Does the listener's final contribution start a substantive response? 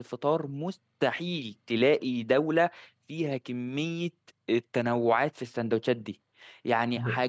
No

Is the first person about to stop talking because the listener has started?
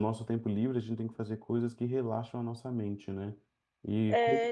No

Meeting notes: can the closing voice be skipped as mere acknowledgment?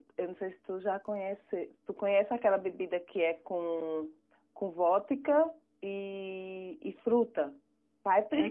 No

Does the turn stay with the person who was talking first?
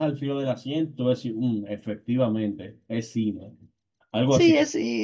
No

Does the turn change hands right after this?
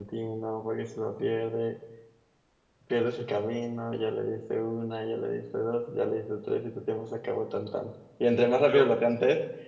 No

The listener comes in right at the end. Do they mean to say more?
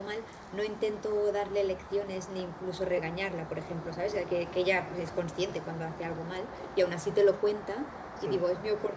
No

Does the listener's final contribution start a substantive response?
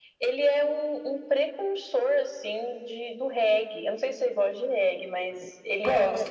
No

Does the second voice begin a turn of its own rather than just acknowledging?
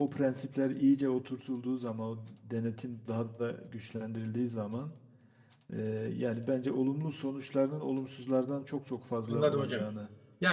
Yes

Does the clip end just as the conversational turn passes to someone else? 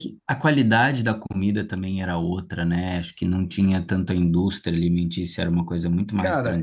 Yes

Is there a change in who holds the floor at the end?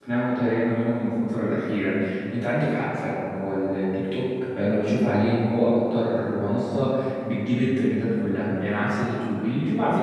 No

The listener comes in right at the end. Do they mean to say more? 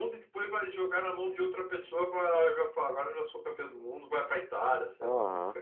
Yes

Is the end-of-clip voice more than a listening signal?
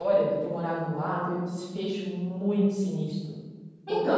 Yes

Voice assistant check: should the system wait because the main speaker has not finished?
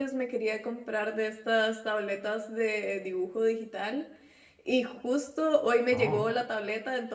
Yes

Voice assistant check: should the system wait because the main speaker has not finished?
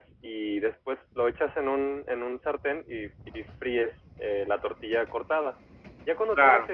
Yes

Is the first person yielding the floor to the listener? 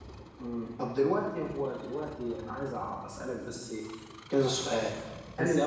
No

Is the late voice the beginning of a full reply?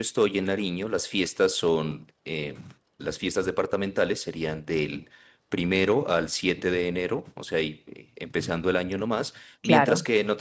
No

